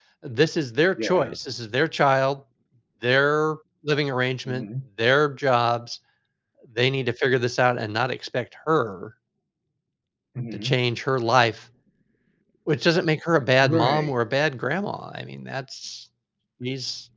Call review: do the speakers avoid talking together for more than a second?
Yes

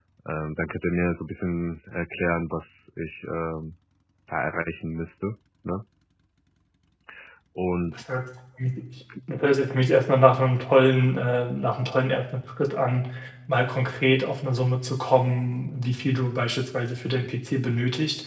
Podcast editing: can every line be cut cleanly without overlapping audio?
Yes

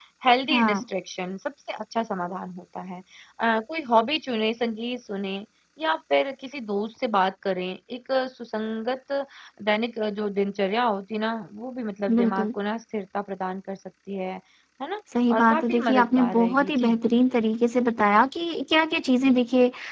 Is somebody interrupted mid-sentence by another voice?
Yes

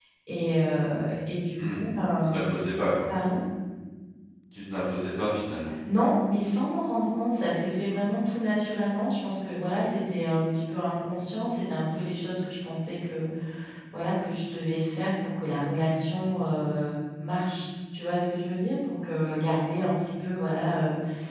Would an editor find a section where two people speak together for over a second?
No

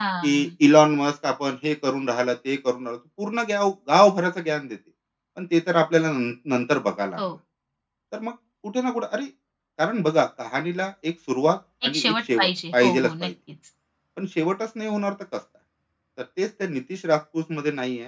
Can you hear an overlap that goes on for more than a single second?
Yes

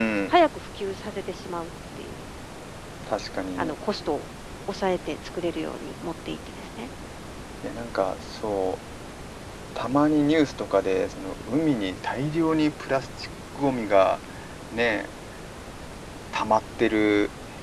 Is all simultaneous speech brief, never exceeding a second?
Yes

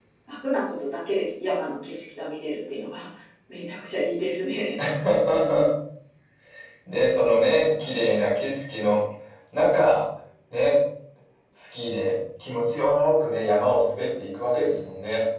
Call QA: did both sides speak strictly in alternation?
Yes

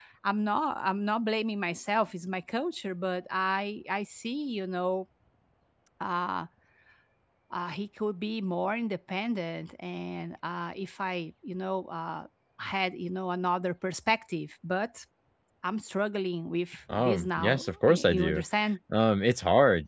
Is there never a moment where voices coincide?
No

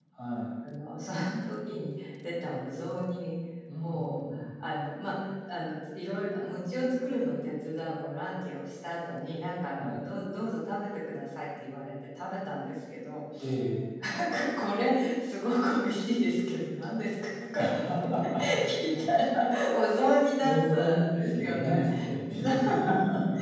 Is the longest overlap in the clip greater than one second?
Yes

